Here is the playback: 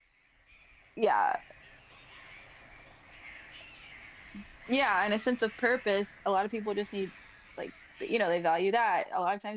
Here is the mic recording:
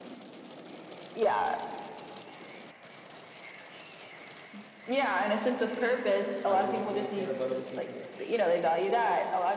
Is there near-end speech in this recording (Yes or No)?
Yes